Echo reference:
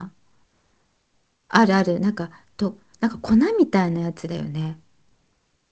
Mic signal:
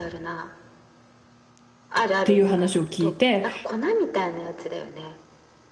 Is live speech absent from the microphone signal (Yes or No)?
No